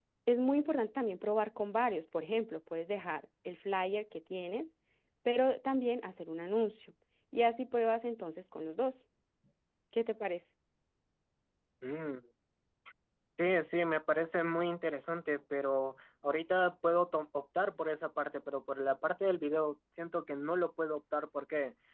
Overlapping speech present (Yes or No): No